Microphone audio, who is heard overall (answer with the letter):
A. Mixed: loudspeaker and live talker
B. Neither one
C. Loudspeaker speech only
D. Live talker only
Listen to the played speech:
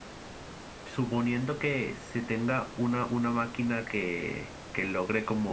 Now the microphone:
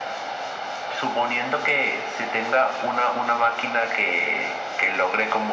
C